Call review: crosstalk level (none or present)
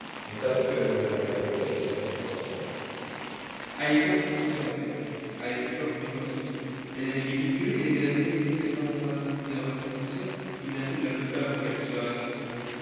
none